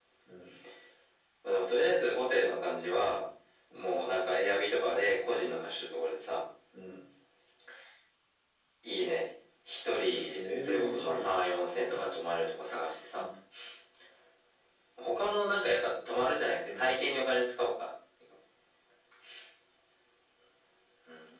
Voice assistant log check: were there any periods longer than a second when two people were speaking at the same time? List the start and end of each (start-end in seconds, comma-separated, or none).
10.0-11.4